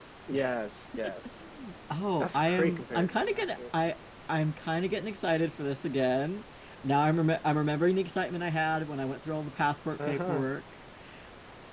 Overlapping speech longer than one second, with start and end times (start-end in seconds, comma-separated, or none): 2.2-3.4